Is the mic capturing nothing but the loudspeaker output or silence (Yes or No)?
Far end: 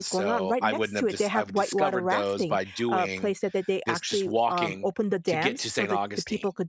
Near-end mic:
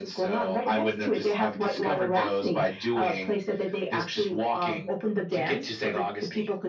Yes